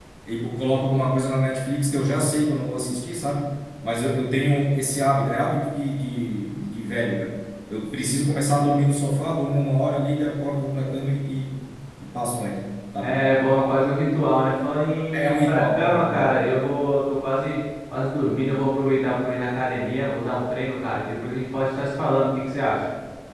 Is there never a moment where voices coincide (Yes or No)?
No